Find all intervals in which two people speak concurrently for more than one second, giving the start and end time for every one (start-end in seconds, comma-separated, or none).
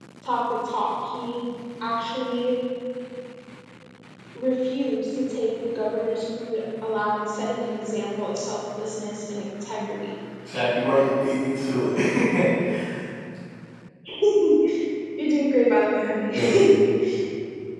none